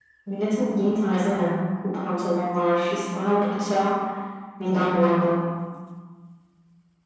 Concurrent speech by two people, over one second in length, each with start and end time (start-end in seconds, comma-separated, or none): none